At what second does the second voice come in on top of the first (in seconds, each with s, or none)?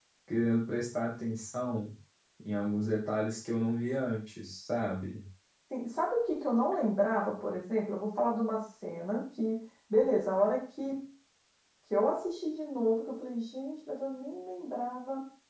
none